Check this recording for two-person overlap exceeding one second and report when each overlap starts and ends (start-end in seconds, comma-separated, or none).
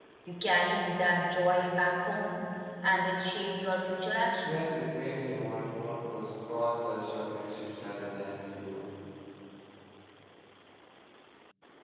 none